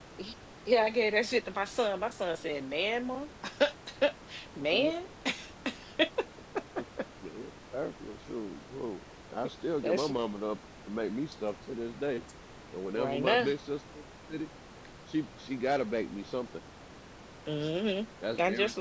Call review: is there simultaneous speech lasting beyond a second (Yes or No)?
No